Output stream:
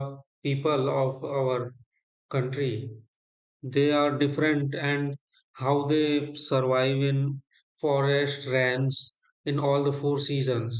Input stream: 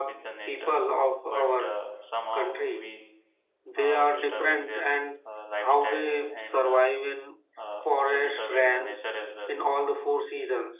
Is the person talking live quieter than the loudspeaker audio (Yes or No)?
Yes